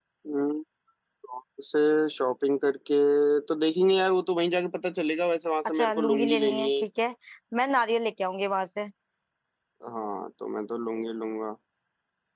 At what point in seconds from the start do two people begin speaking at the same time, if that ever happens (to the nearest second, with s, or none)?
6 s